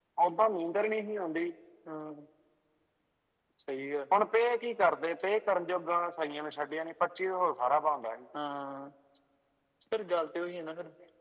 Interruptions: none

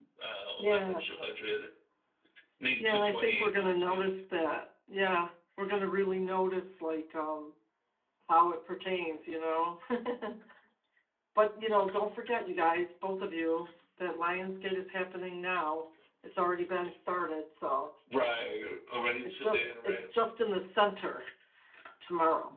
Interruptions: present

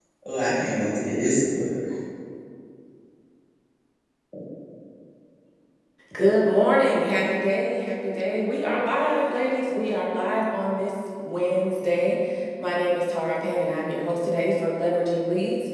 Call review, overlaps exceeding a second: none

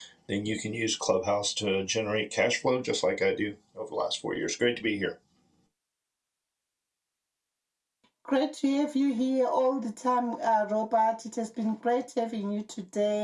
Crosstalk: none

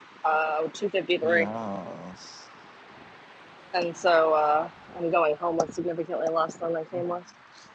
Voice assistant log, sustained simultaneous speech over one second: none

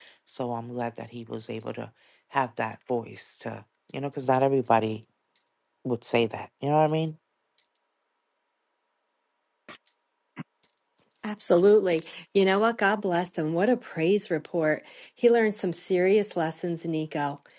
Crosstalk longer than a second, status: none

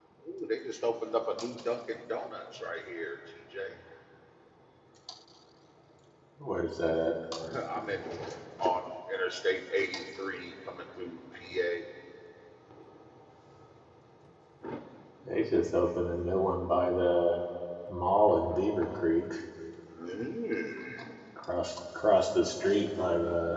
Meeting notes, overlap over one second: none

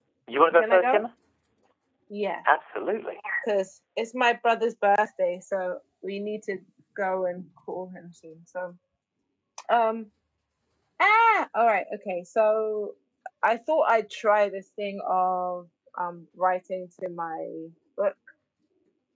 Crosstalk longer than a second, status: none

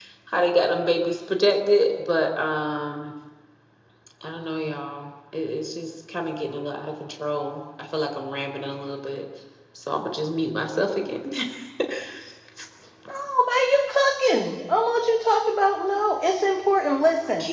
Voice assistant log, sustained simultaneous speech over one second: none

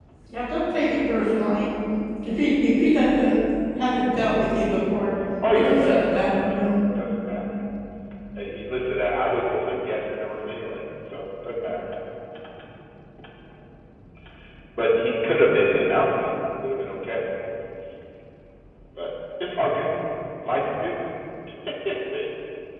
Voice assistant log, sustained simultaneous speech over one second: present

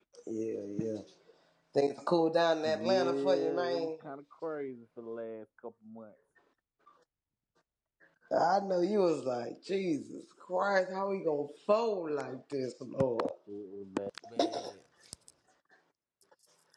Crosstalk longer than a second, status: present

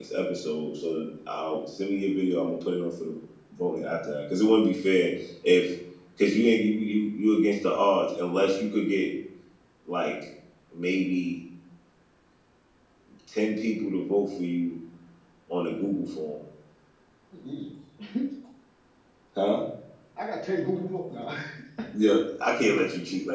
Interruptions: none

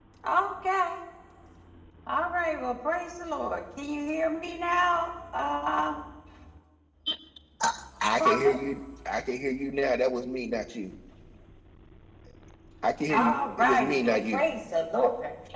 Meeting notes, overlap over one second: present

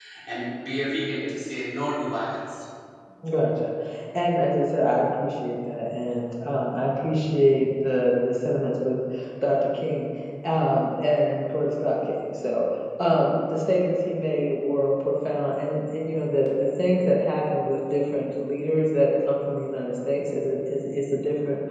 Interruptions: none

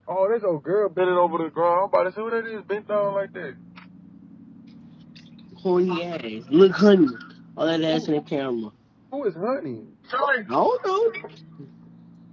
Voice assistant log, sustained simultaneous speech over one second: none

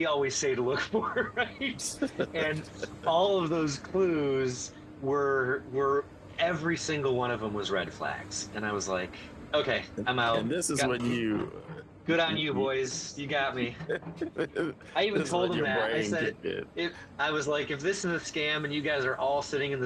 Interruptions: present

